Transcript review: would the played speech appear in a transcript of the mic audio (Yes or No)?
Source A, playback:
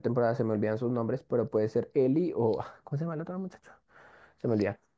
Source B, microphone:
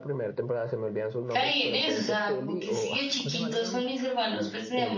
Yes